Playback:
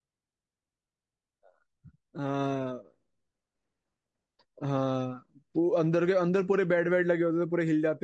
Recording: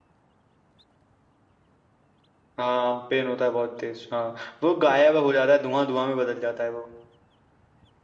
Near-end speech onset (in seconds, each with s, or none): 2.6 s